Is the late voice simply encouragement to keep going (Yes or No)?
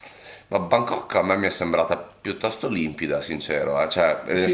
No